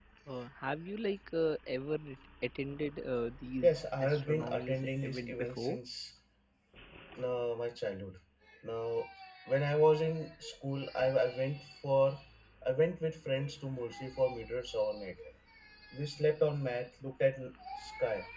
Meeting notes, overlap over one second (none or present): present